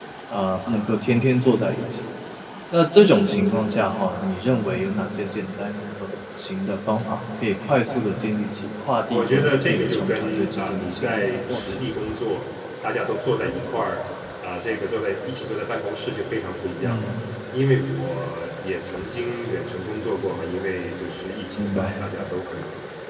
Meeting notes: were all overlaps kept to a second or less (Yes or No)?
No